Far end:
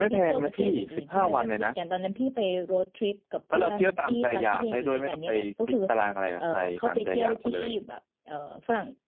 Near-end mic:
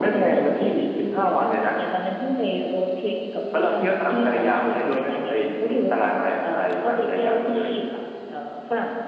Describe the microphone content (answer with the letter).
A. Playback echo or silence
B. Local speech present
A